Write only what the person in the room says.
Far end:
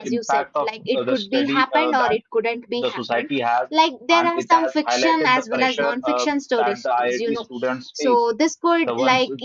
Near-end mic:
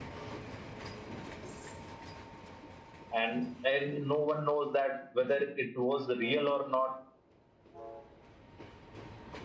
and and no one knows that whether it was real or not.

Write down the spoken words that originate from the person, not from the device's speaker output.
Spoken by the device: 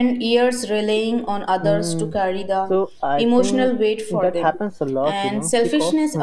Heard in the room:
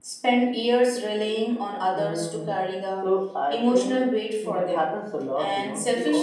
none

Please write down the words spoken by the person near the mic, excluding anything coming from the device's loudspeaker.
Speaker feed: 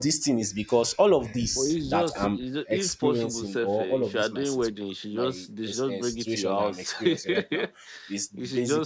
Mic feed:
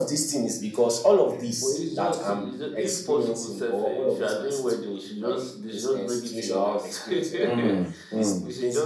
Hmm. Hmm.

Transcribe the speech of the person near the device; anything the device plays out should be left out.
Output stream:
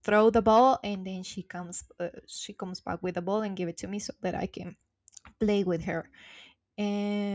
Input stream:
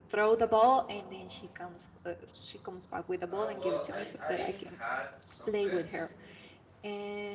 Uh, well, I I've had some pets

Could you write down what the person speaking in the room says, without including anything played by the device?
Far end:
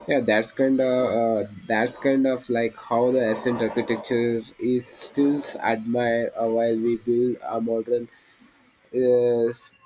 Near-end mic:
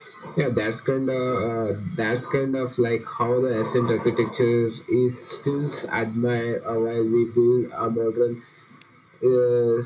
none

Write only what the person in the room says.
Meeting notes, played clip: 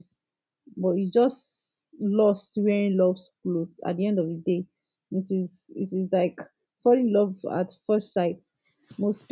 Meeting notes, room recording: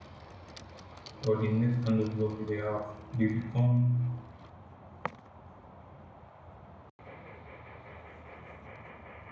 or the next kind of love that they have, they become

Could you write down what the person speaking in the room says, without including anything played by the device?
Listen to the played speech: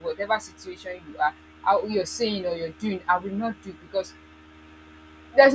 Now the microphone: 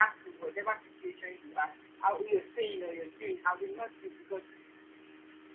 none

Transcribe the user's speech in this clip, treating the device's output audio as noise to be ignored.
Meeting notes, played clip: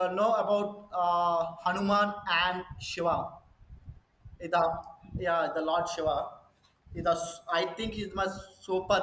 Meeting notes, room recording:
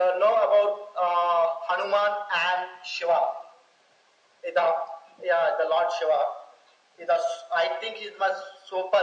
none

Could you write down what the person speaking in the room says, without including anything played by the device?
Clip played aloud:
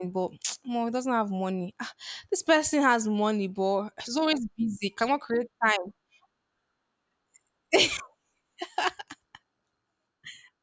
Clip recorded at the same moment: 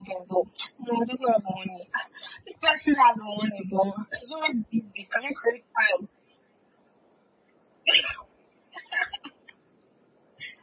none

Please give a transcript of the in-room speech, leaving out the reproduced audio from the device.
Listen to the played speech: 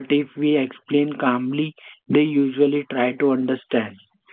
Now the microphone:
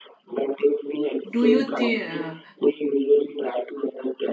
Do you think? Uh,

